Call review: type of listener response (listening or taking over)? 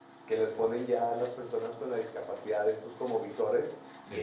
listening